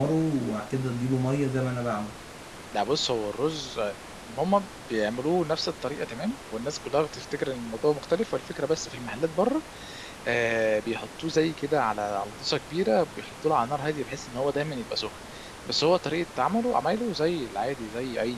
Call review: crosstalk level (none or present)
none